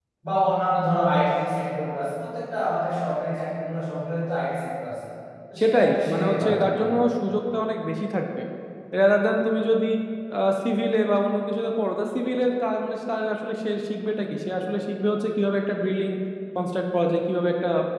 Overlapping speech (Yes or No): Yes